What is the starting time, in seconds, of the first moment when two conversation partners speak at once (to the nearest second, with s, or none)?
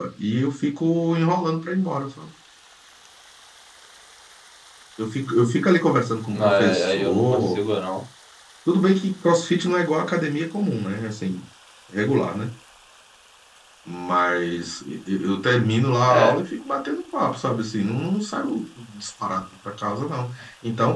6 s